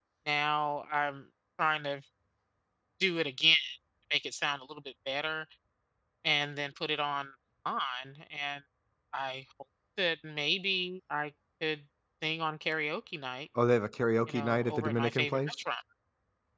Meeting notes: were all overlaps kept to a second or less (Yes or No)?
No